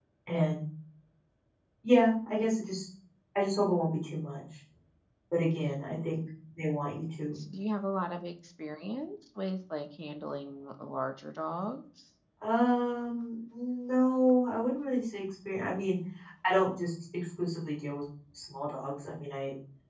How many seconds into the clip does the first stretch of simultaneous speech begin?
none

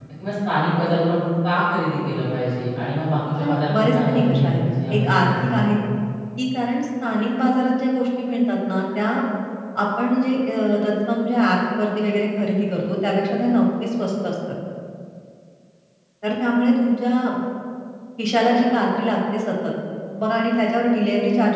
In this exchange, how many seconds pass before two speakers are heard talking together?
3.4 s

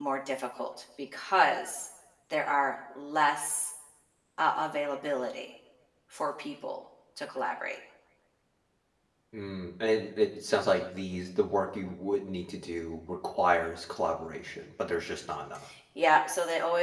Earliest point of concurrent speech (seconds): none

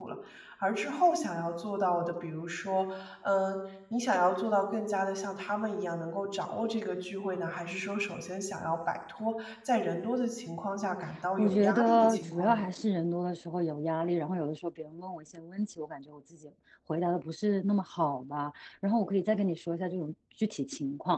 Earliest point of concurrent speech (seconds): 11.4 s

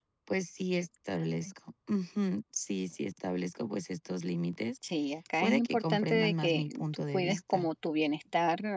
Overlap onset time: 5.4 s

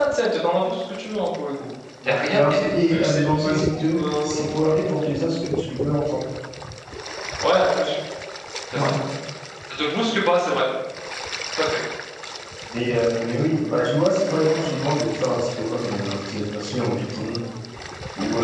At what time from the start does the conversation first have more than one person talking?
2.0 s

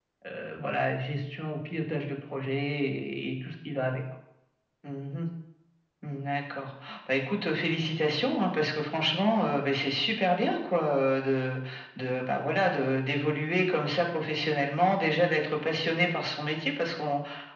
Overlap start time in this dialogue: none

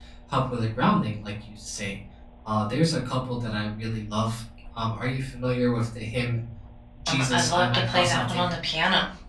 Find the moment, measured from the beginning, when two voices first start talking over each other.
7.1 s

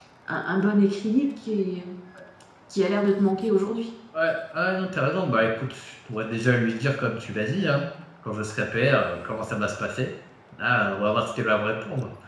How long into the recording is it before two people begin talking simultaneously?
none

